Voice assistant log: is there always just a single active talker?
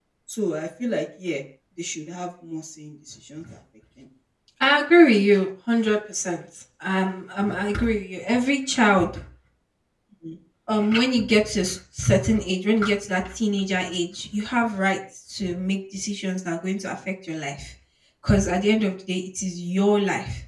Yes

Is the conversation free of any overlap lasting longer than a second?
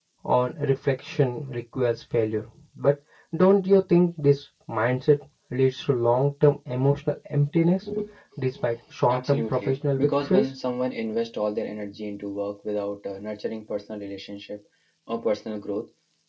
No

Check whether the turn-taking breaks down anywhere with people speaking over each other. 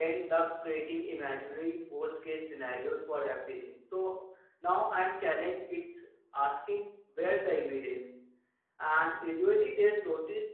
No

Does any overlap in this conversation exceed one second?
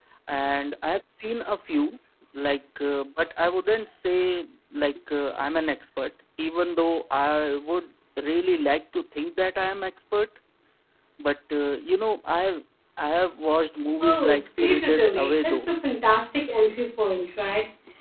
Yes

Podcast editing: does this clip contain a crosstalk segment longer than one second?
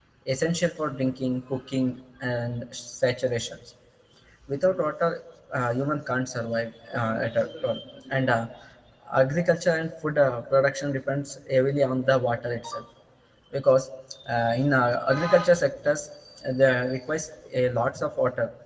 No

